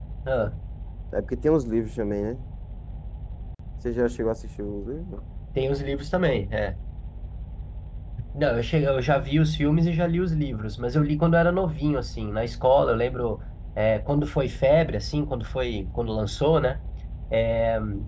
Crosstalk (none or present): none